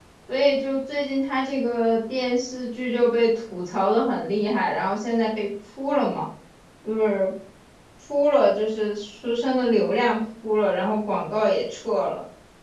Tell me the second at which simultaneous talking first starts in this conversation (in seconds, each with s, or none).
none